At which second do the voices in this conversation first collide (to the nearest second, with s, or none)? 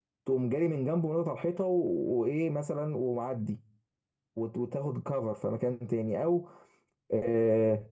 none